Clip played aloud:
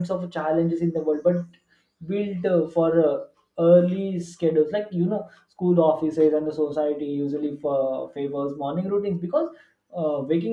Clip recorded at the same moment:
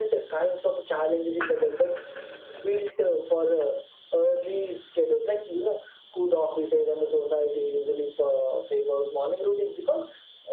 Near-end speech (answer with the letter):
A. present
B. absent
B